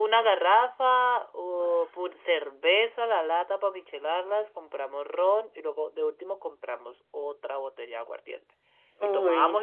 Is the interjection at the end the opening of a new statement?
No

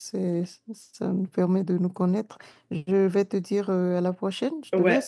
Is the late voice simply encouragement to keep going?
No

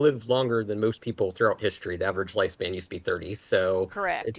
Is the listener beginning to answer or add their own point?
No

